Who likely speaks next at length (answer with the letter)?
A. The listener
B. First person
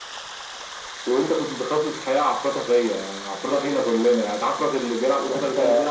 B